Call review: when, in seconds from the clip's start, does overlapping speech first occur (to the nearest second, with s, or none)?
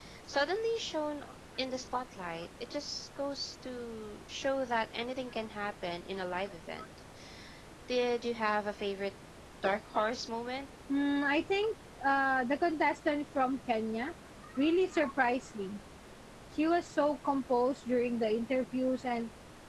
none